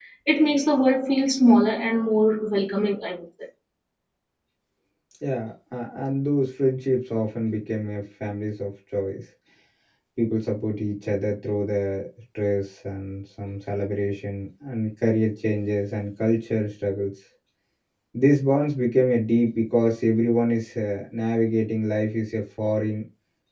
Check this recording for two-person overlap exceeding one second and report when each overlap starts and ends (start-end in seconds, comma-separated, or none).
none